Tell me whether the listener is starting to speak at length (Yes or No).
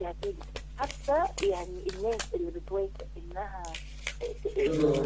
No